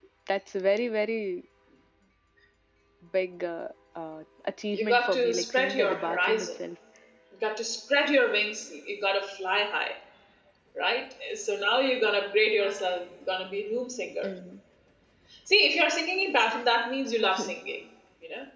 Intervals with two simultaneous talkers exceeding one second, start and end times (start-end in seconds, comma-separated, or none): 4.8-6.5